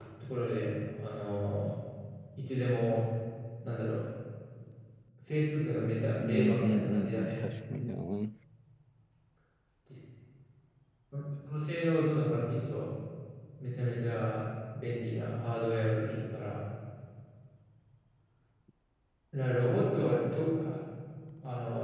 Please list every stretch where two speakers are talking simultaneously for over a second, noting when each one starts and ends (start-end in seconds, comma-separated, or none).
6.2-7.4